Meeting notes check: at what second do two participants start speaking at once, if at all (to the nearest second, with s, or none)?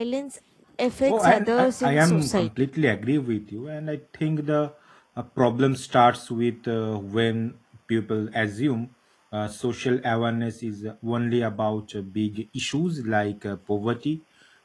1 s